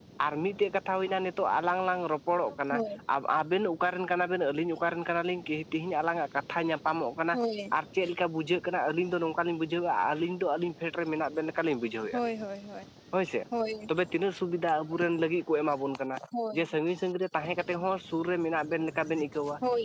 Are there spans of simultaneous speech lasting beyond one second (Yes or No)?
No